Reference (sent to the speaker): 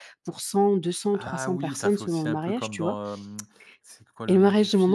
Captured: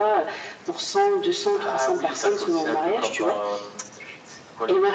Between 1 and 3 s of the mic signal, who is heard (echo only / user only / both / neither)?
echo only